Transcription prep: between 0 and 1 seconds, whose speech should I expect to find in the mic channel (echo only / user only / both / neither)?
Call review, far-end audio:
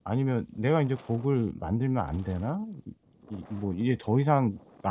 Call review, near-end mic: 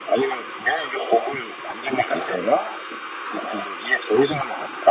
echo only